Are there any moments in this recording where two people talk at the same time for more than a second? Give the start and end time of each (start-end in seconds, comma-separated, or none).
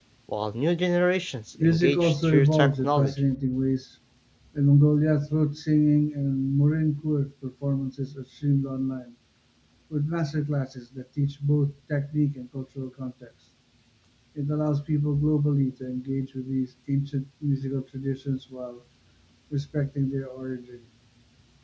1.6-3.1